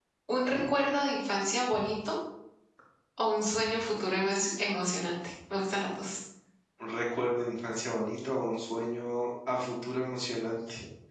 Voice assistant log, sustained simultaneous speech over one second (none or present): none